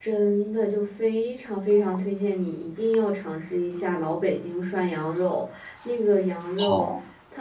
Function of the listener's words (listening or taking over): listening